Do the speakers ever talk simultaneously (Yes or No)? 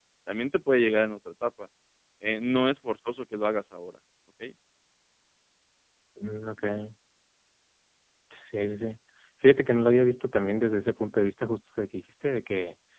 No